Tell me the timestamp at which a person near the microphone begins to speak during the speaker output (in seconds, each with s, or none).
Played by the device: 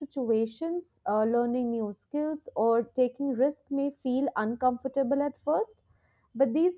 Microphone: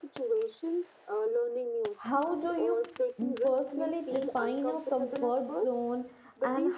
2.0 s